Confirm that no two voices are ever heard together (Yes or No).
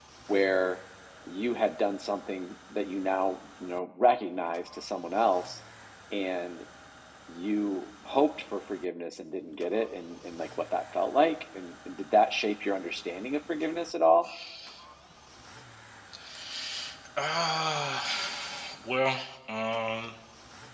Yes